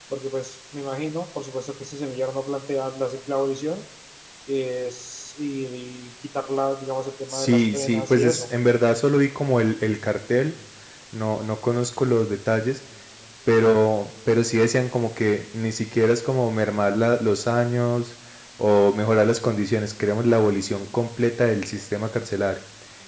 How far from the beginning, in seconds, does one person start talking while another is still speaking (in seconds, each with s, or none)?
7.3 s